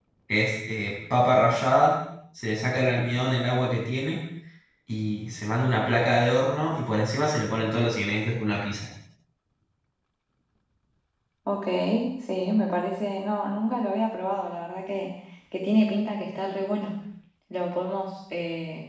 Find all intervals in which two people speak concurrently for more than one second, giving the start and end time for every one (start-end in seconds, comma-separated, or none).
none